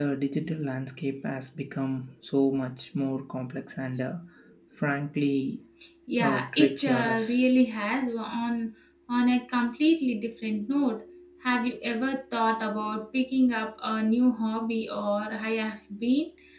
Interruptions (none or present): present